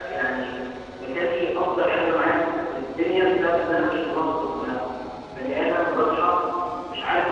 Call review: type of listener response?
listening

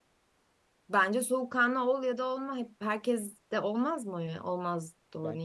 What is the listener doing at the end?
taking over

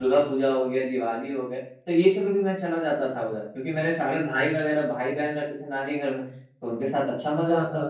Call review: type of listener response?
listening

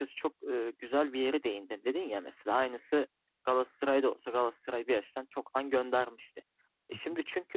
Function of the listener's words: listening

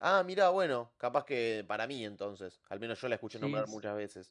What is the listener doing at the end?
taking over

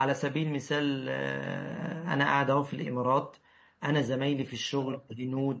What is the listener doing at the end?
listening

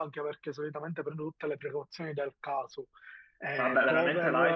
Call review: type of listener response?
taking over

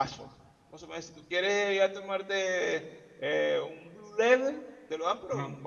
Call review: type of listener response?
listening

